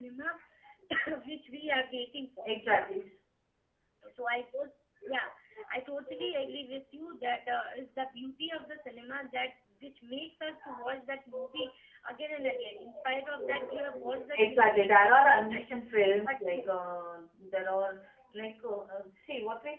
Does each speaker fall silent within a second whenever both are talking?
No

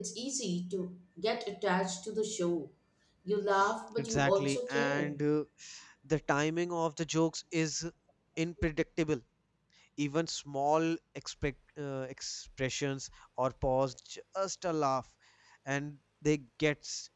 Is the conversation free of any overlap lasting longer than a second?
No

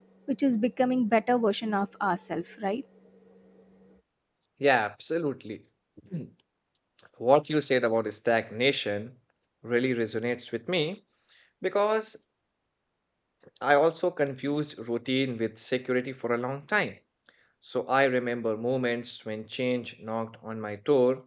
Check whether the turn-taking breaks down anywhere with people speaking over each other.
No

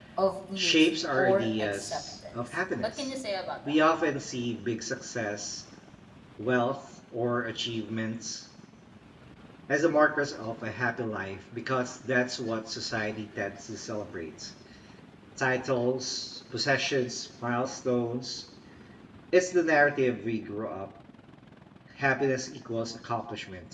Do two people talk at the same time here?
Yes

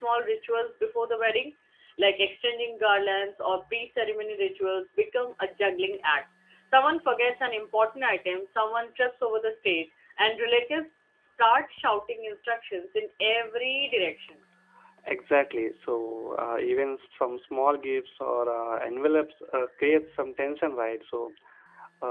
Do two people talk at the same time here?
No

